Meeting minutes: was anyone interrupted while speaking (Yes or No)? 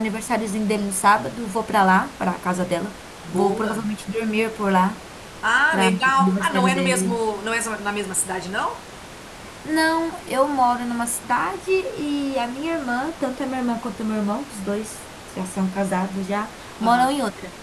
Yes